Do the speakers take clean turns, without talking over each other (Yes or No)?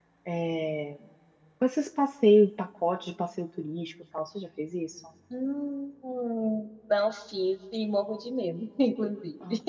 Yes